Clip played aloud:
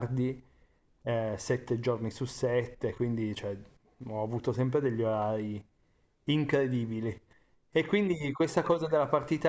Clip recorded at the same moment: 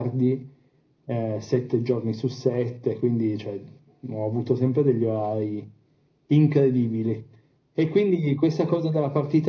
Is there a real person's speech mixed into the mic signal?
No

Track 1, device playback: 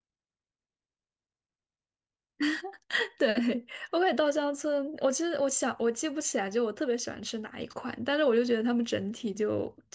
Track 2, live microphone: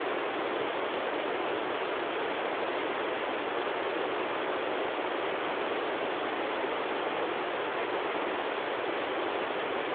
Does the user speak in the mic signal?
No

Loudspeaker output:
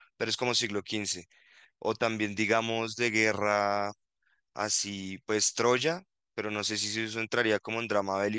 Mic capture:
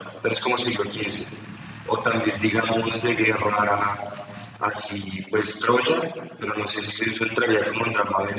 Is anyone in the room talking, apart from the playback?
No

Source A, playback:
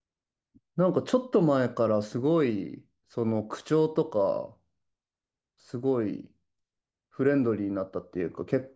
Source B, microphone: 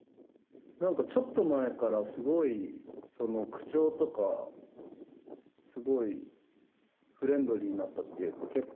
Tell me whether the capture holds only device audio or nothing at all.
Yes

